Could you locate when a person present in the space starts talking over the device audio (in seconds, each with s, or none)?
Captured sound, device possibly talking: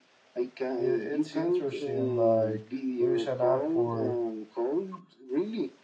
0.7 s